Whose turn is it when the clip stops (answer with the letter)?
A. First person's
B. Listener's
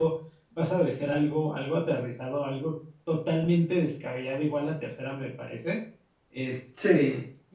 A